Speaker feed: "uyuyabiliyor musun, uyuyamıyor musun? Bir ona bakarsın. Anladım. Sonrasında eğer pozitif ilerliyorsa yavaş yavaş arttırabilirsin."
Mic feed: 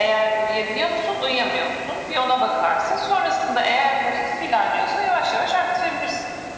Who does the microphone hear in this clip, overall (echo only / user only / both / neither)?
echo only